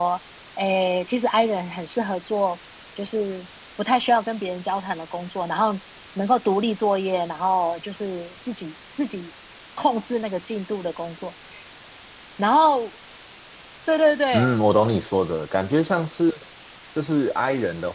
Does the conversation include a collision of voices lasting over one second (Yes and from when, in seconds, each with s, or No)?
No